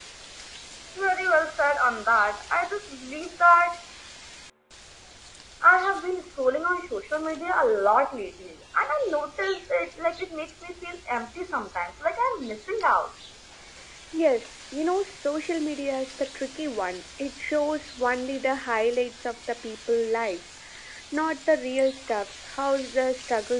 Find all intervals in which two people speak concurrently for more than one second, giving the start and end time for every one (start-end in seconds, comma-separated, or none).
none